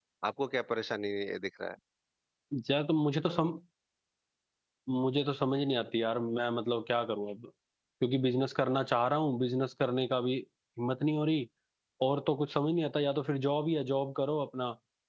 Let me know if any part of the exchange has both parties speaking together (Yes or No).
No